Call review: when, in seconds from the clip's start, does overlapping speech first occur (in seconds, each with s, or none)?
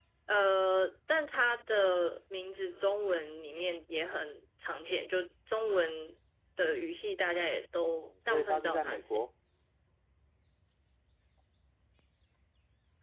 7.9 s